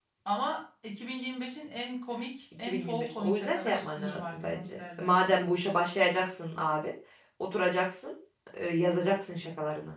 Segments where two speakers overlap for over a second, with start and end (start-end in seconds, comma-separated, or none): 2.7-5.3